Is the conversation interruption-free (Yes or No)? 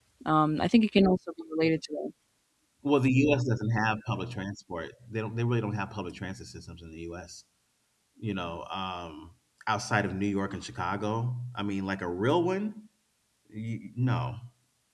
Yes